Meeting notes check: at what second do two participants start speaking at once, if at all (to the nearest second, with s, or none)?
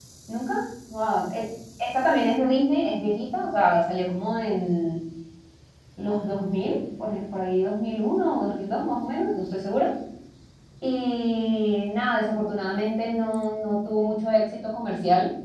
none